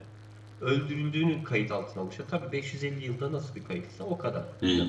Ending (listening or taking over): taking over